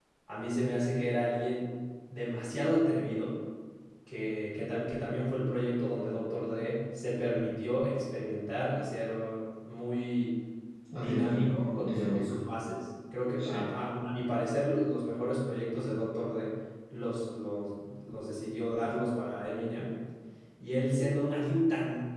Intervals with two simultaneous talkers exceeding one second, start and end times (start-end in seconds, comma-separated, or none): 10.9-12.4